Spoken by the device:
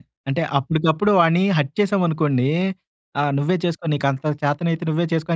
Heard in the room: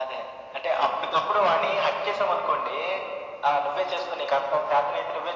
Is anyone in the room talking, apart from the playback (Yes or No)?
No